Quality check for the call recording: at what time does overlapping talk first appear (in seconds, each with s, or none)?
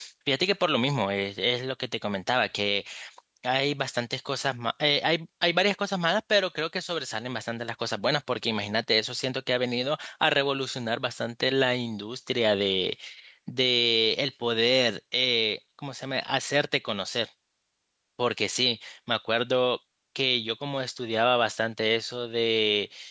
none